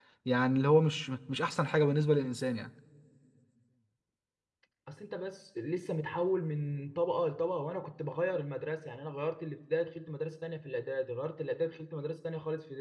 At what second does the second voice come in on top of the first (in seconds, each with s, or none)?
none